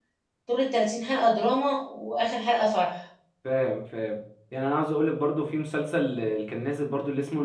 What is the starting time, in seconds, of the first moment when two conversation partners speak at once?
none

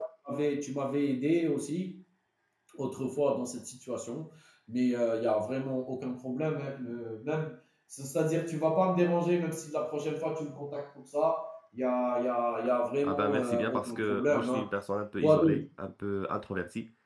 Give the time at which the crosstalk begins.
13.0 s

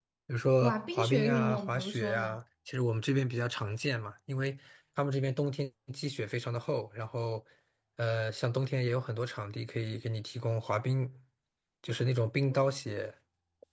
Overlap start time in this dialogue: 0.6 s

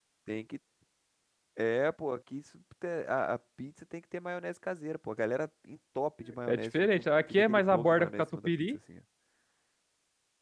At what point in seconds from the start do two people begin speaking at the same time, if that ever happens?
6.5 s

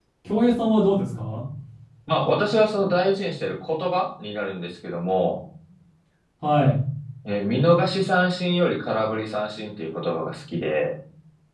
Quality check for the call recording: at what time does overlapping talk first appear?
none

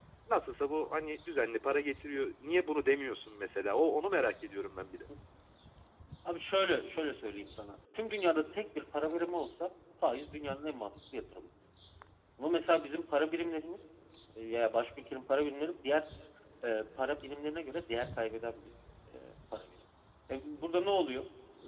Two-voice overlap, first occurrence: none

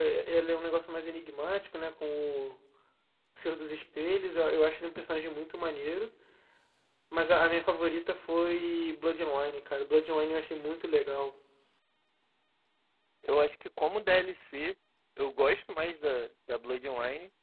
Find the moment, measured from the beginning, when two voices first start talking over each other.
none

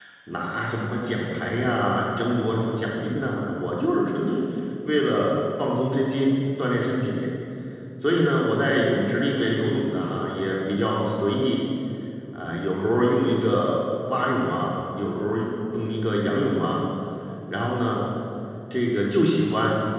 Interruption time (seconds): none

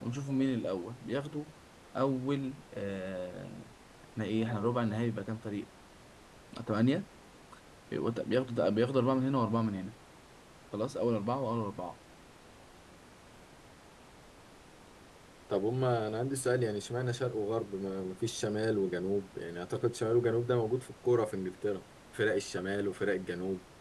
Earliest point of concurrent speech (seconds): none

